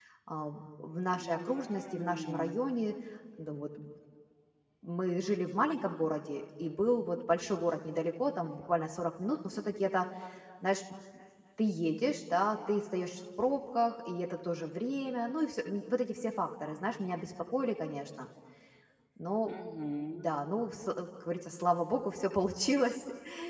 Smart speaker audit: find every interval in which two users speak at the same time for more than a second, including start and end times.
1.2-2.6

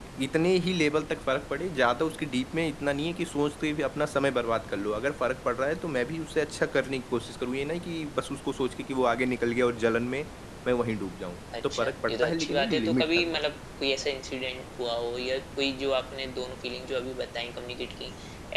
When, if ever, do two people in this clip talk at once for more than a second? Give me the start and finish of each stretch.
11.7-13.4

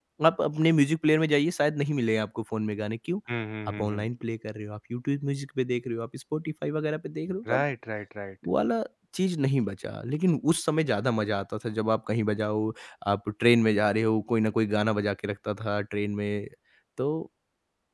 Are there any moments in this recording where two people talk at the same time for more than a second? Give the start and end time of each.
none

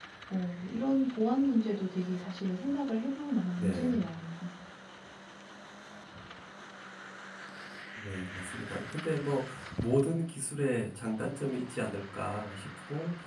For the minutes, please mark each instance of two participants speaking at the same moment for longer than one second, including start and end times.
none

